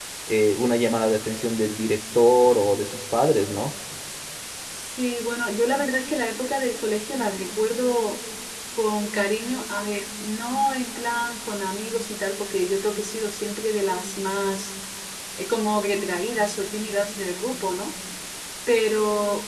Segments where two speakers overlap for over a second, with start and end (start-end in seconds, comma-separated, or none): none